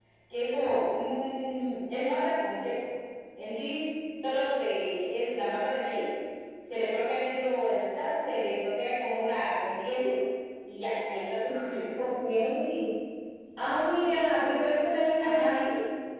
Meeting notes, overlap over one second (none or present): none